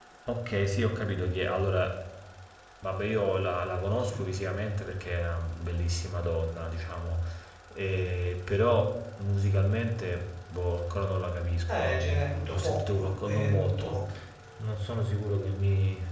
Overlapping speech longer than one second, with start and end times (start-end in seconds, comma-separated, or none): 11.7-14.0